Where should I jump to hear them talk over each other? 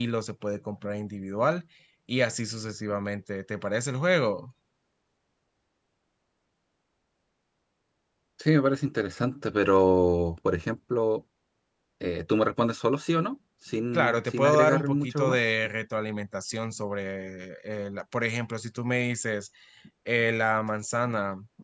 13.9 s

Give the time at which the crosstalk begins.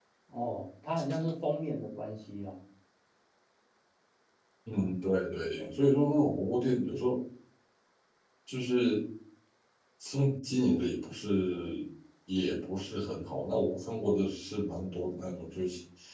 none

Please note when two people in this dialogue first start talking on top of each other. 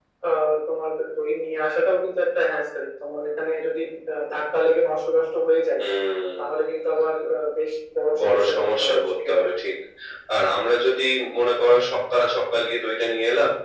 8.1 s

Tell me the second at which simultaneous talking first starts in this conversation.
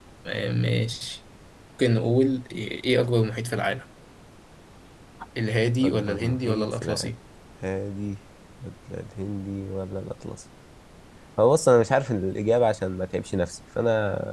5.8 s

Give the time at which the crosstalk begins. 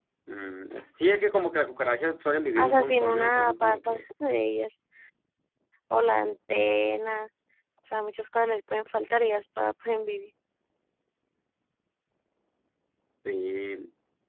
2.6 s

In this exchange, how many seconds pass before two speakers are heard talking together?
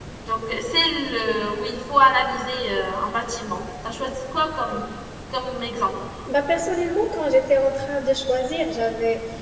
none

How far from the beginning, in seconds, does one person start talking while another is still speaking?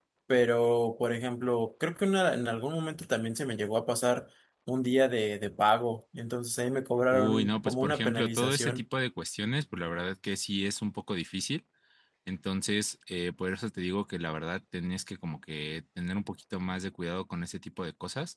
7.1 s

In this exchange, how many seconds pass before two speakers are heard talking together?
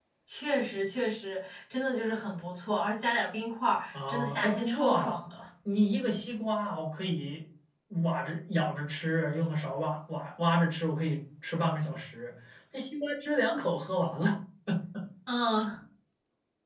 3.9 s

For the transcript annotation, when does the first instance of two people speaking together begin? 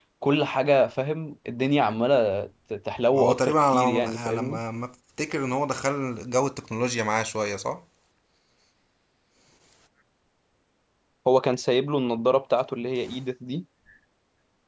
3.1 s

